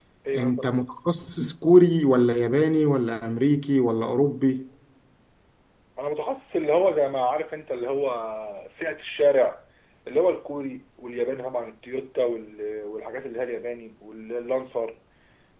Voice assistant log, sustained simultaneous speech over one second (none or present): none